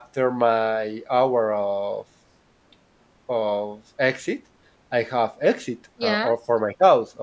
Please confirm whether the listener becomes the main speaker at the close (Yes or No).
No